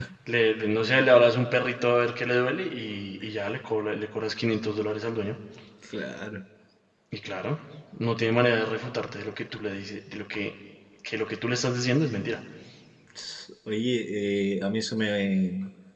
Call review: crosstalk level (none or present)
none